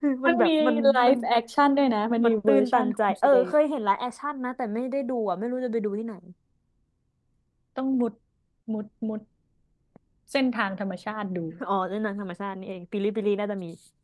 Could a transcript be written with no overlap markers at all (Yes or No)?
No